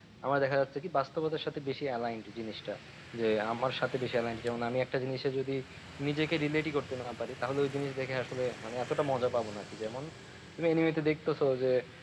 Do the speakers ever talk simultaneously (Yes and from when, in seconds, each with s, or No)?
No